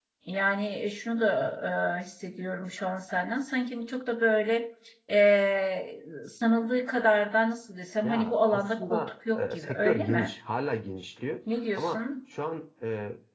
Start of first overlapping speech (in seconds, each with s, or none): 8.0 s